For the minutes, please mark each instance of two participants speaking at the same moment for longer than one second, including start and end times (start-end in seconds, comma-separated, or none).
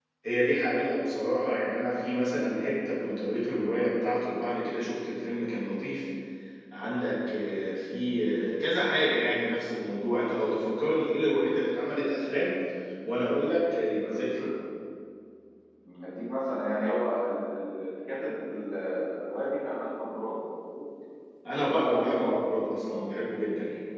21.6-23.0